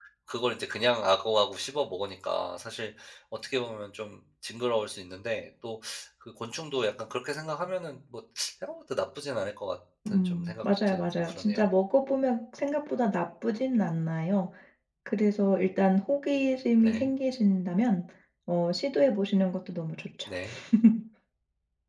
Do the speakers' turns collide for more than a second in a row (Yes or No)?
Yes